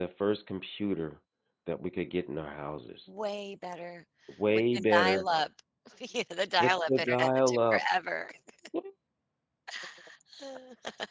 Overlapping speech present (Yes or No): Yes